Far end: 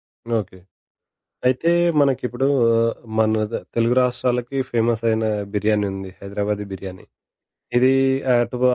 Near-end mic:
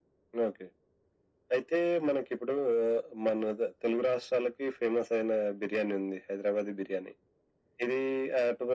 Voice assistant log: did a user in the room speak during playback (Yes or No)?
No